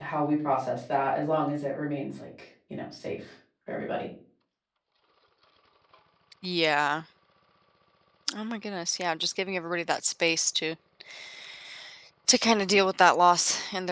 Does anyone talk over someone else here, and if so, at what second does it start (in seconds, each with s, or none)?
none